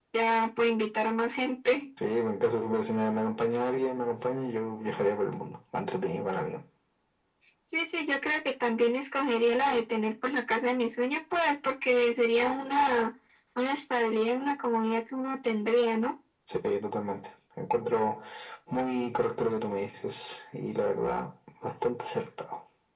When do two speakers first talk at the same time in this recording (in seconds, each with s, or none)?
none